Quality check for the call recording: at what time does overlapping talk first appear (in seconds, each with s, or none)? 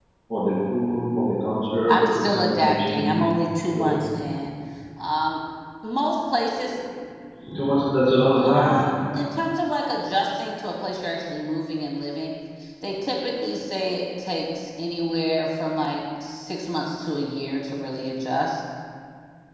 1.9 s